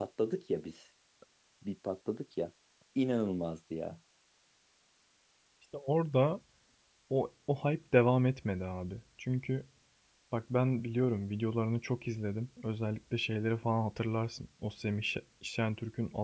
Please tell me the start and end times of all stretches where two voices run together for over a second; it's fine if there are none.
none

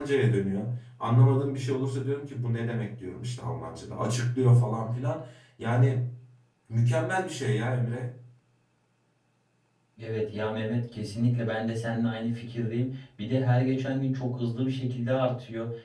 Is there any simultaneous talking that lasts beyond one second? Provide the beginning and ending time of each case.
none

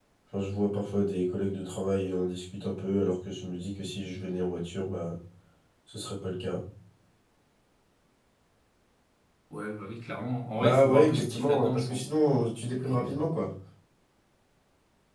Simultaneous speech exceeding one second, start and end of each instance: 10.6-12.1

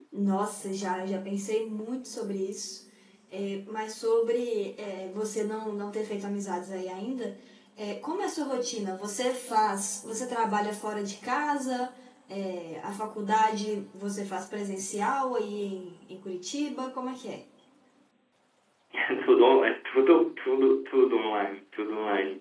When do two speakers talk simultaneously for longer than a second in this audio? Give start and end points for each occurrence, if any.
none

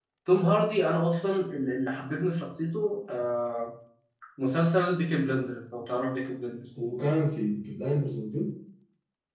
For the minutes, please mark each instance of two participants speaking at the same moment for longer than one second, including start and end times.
none

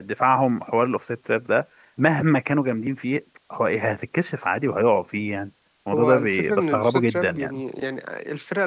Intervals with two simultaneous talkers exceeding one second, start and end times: 5.9-7.6

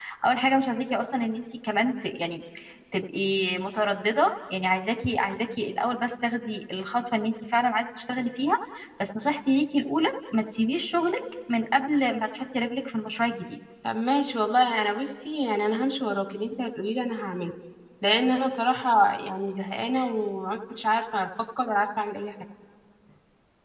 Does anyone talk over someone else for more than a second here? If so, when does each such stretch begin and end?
none

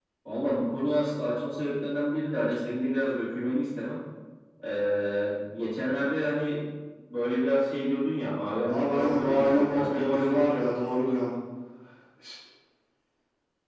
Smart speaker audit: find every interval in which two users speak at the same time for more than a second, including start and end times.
8.8-10.5

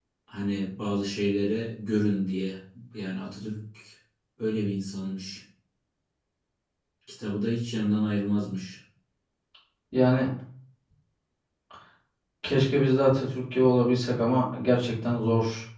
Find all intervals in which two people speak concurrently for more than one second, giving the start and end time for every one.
none

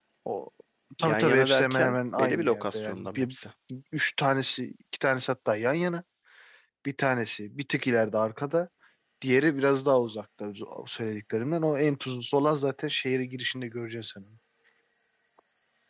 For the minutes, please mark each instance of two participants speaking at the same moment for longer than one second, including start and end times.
1.0-3.3

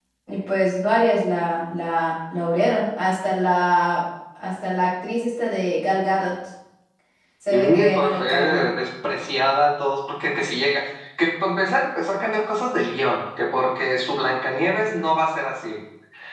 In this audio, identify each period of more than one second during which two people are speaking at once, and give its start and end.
7.5-8.7

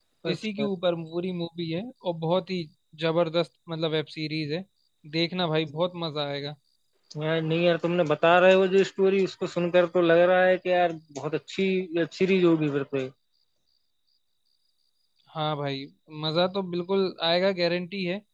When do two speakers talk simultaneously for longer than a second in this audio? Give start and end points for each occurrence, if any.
none

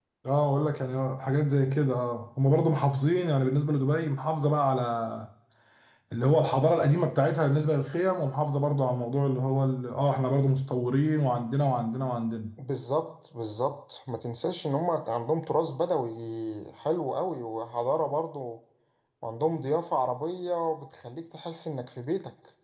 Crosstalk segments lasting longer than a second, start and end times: none

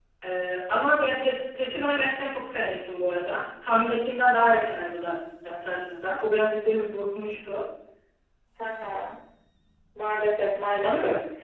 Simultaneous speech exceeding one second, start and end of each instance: none

